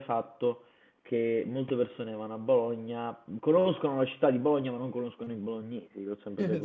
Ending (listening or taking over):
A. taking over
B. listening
A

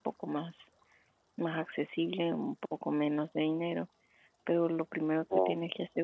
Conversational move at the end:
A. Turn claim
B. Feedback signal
B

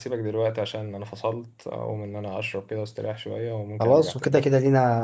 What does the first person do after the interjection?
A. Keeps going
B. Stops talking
B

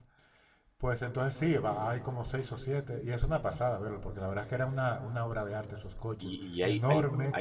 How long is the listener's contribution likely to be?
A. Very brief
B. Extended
B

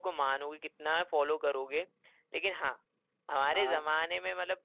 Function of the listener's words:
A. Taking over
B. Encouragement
B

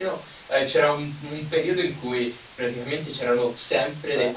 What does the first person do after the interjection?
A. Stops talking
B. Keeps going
B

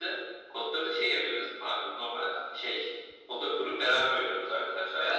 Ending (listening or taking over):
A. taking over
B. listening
A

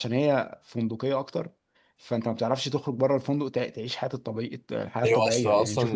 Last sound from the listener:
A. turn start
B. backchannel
A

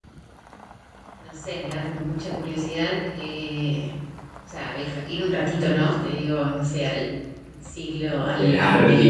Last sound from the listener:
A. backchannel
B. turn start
B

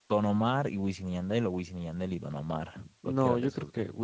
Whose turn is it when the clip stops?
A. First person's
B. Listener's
B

